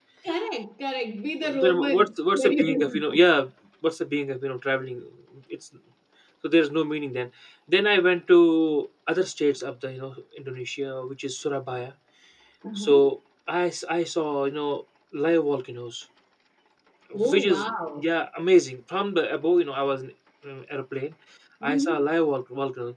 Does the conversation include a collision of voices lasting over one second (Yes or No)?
Yes